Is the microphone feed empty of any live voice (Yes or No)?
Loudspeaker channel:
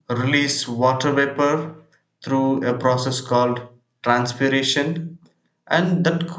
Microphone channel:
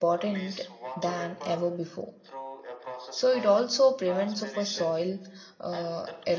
No